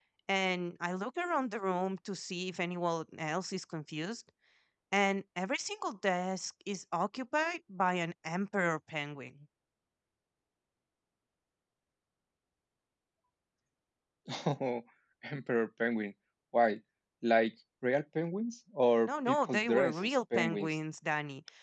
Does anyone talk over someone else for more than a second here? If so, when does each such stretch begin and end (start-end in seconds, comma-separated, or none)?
19.1-20.8